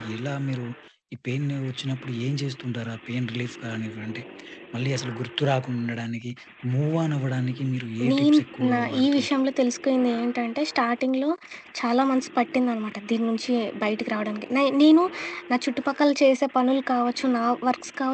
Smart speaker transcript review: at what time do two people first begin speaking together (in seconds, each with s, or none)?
8.0 s